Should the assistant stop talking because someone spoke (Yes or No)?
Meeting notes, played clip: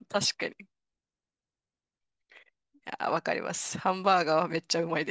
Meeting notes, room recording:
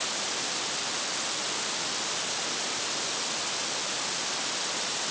No